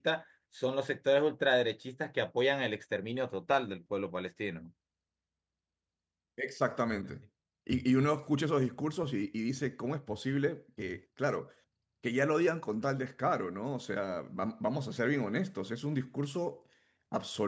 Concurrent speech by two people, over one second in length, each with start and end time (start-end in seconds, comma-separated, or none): none